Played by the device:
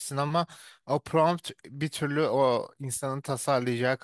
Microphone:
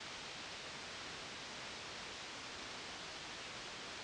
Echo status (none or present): none